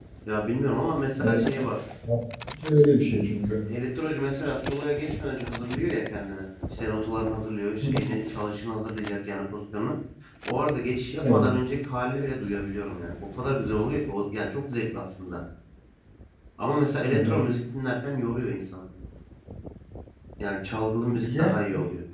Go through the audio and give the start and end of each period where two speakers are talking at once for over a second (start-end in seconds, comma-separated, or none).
none